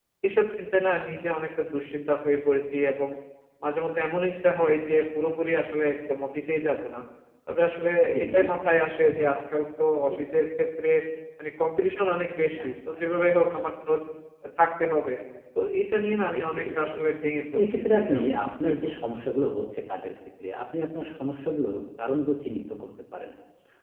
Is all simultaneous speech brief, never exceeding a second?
No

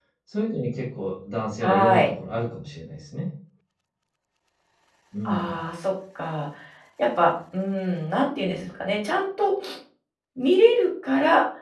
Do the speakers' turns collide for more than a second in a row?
No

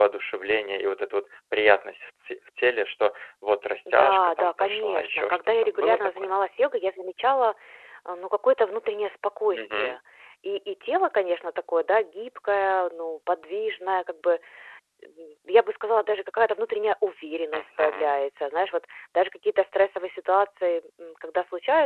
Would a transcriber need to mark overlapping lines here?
Yes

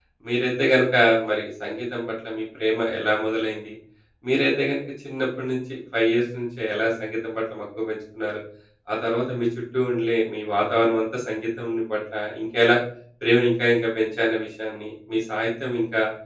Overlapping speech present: No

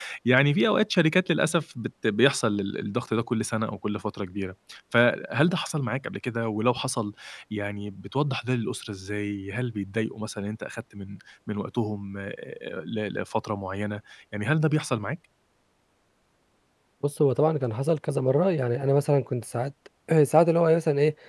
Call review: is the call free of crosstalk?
Yes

